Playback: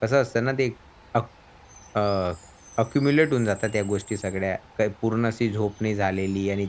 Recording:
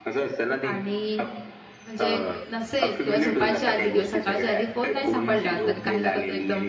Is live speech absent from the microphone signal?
No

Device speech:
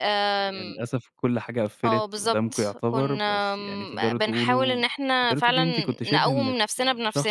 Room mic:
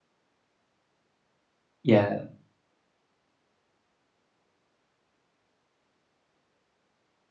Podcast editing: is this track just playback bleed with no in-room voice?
No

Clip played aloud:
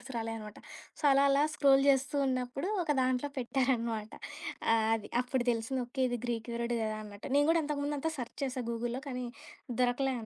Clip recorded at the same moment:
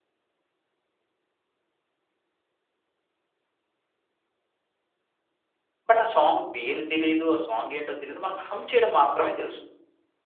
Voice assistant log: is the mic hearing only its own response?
No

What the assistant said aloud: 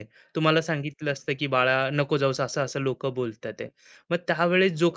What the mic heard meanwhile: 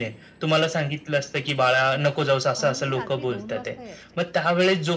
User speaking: Yes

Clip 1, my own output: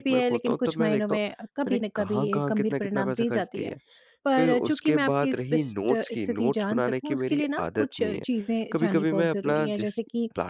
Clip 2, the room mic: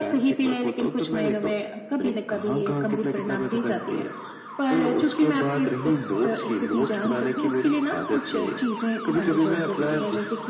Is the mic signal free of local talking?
Yes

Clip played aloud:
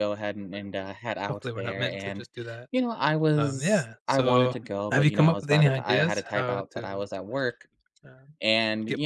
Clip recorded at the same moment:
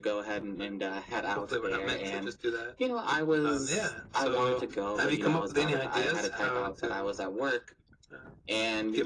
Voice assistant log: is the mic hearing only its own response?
Yes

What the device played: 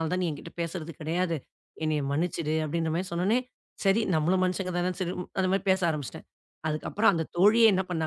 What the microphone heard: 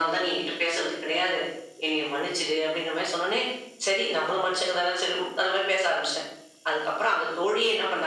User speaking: No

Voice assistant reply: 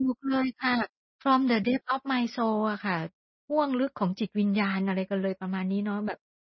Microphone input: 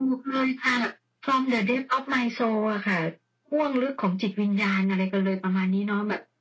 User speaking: No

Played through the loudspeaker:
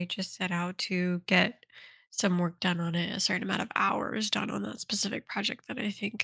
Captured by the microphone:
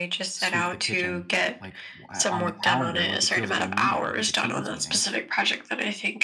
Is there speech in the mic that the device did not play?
Yes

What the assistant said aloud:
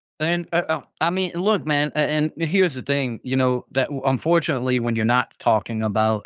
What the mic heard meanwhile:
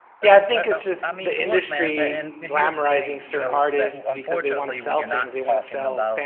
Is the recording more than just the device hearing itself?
Yes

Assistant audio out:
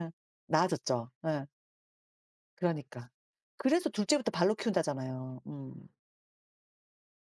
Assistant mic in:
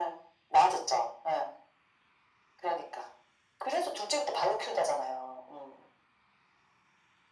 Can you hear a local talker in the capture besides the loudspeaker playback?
No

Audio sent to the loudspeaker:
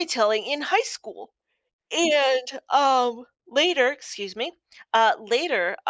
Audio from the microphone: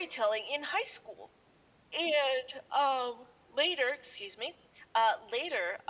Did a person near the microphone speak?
No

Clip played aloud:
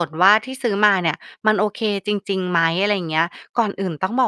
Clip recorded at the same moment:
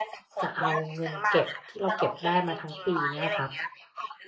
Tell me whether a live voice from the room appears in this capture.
Yes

